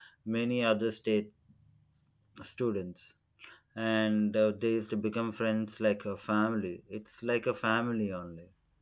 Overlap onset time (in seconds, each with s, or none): none